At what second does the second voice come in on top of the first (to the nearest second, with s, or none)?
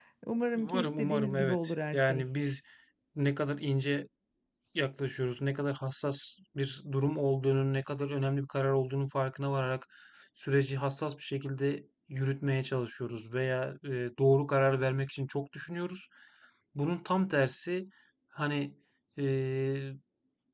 1 s